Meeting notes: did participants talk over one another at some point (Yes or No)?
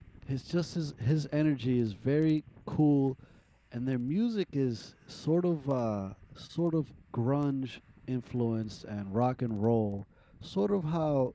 No